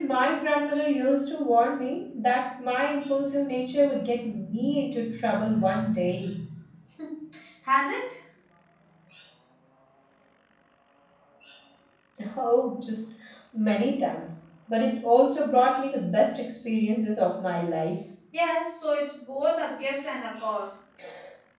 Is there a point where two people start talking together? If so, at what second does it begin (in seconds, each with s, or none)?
none